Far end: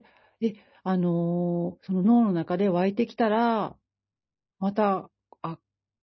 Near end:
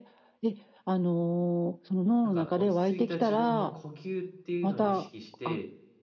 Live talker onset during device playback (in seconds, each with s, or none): 2.2 s